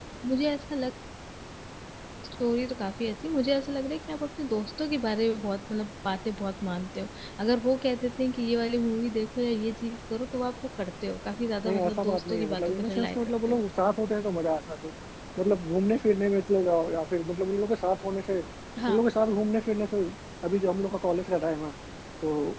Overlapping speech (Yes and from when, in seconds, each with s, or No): Yes, from 11.6 s